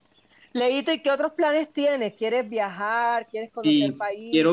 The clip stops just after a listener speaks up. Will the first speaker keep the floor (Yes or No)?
No